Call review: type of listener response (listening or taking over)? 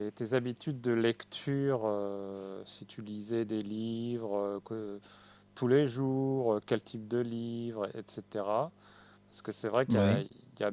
listening